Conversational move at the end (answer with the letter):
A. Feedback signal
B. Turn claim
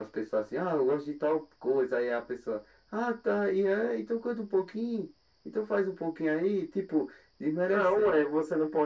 B